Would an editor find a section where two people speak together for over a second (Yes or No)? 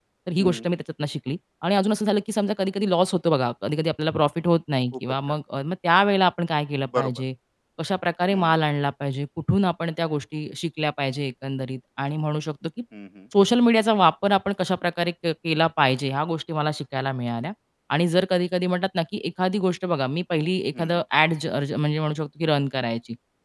No